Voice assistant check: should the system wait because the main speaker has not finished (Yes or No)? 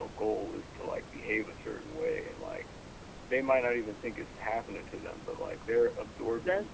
No